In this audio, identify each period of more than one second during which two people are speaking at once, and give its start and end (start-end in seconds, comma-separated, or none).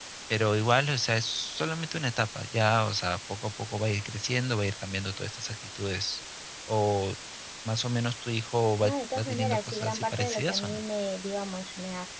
8.8-10.8